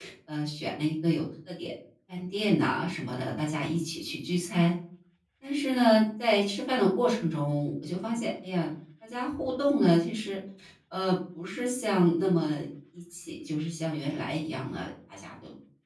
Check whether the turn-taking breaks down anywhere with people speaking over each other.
No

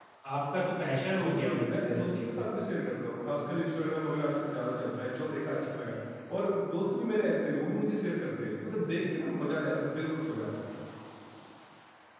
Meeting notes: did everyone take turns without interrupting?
No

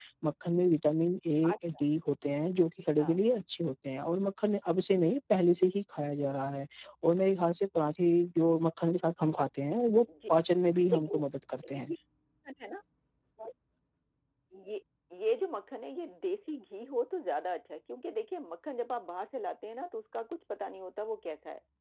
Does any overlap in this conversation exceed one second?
No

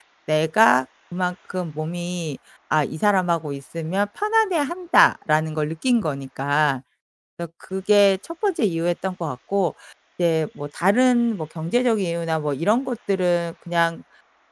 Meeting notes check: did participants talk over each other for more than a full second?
No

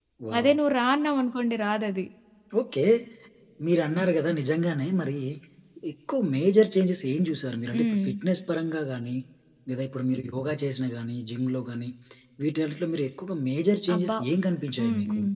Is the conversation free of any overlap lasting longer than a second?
Yes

